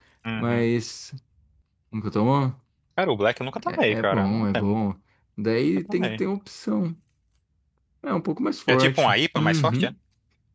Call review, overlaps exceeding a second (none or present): present